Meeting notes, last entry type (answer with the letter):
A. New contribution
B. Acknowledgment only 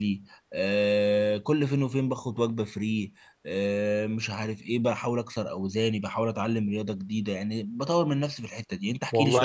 A